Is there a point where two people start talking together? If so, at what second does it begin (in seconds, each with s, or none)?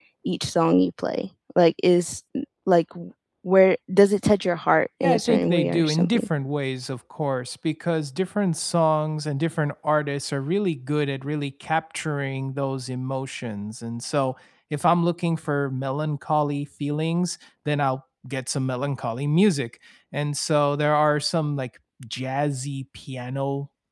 5.0 s